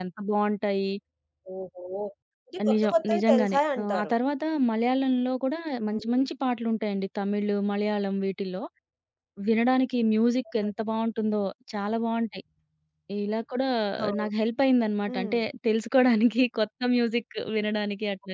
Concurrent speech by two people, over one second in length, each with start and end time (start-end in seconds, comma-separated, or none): 2.7-4.1